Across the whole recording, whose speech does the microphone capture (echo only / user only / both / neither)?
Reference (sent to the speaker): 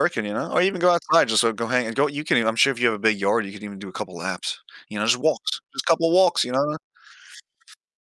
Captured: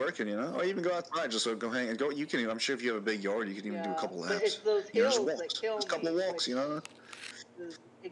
both